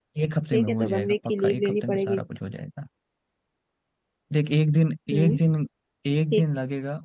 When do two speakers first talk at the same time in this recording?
0.5 s

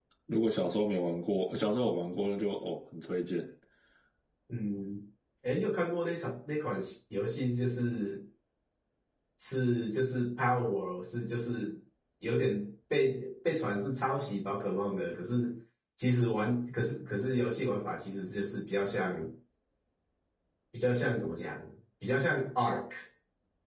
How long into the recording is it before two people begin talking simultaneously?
none

